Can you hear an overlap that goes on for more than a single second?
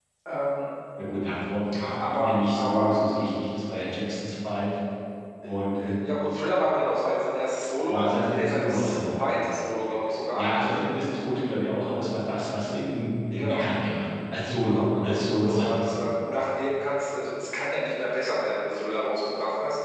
Yes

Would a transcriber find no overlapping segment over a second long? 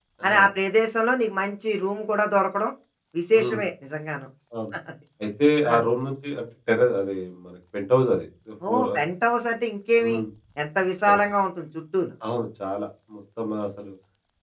Yes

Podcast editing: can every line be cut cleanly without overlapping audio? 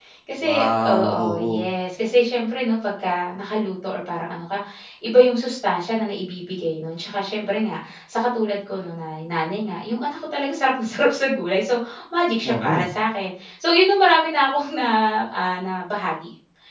No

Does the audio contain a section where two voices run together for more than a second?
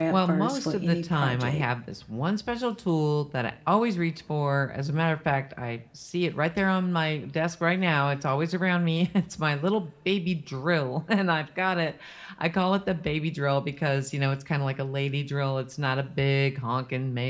Yes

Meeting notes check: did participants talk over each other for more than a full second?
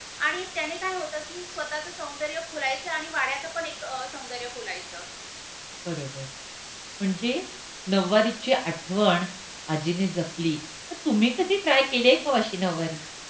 No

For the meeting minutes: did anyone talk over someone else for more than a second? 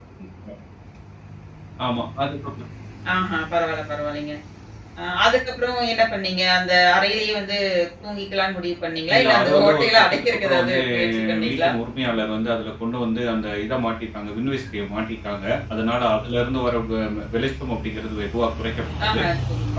Yes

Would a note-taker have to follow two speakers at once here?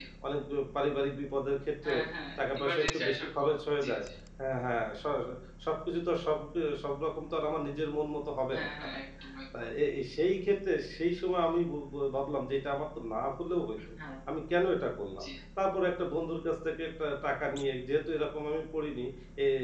Yes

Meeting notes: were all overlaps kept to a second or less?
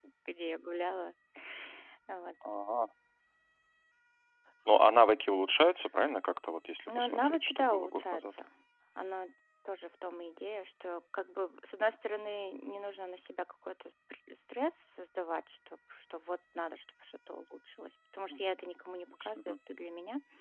No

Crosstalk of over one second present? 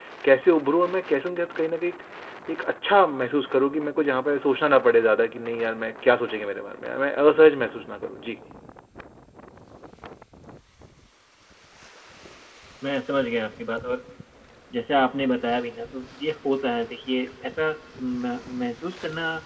No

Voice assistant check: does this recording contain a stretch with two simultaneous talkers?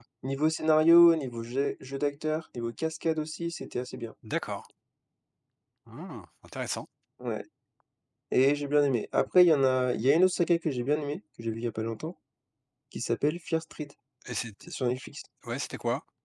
No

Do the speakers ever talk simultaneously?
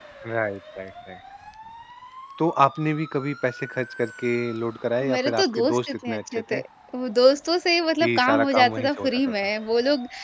Yes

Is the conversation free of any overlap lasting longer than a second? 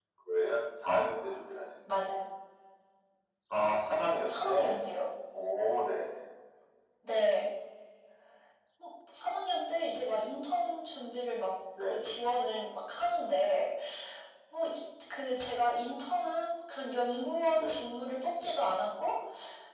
Yes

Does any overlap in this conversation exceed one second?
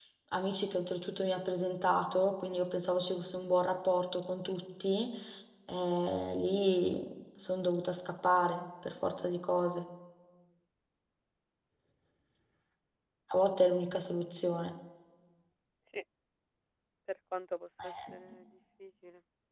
No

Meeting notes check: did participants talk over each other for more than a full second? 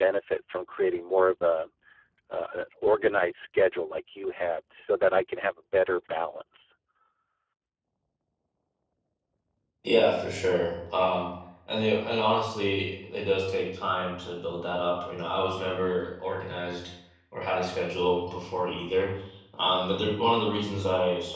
No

